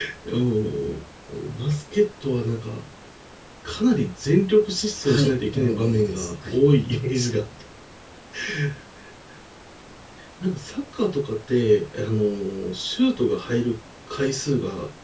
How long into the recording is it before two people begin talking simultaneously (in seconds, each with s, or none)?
5.0 s